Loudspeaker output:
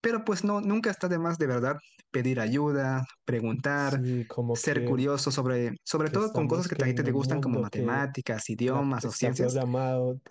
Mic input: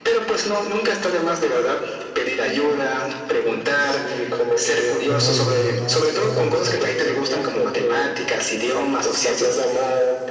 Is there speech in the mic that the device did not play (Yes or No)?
Yes